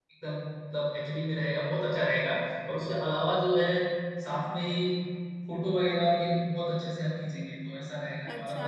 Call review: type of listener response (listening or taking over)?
taking over